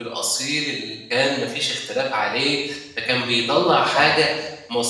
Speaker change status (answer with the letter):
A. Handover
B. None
B